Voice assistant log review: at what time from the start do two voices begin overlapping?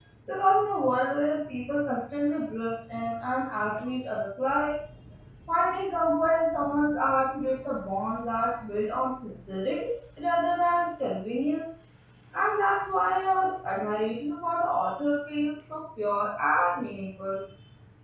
none

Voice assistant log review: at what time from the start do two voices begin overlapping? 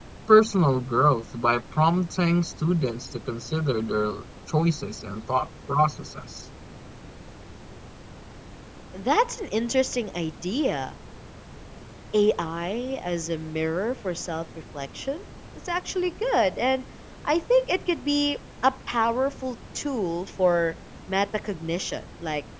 none

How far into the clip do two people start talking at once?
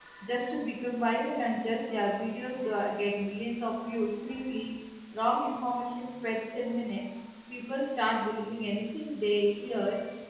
none

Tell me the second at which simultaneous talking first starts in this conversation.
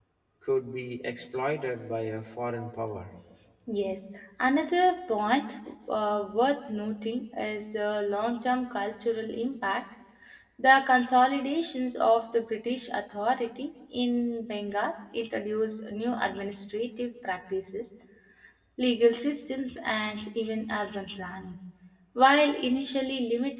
none

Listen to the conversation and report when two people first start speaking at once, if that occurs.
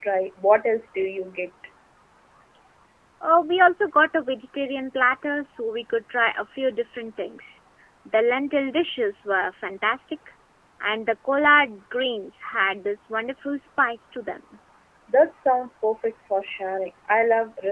none

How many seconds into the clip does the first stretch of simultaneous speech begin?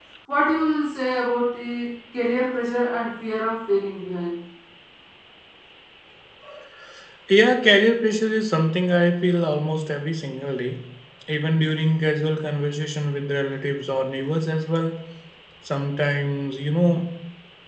none

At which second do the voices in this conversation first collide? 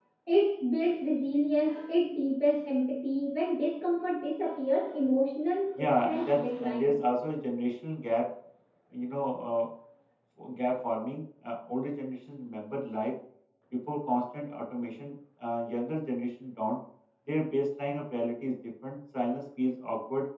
5.8 s

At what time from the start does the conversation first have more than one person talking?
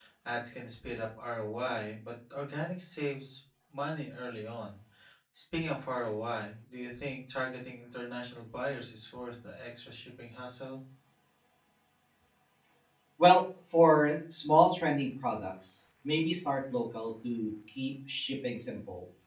none

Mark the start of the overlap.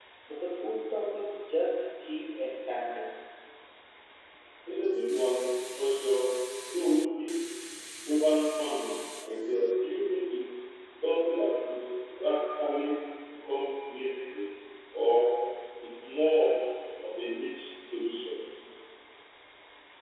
none

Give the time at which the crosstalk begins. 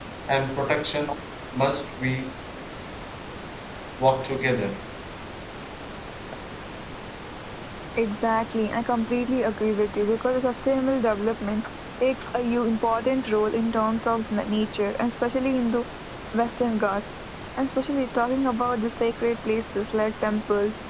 none

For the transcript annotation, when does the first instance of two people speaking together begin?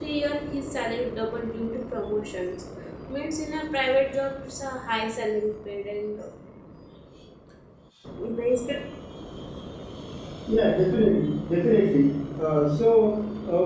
none

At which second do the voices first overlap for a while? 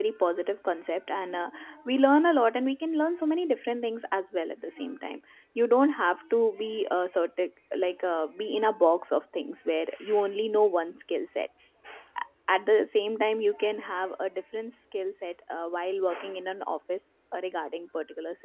none

